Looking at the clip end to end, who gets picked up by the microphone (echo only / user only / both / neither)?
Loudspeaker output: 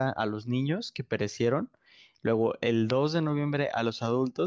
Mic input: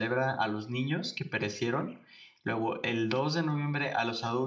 echo only